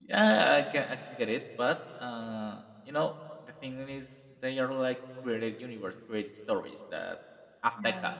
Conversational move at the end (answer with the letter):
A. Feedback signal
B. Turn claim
A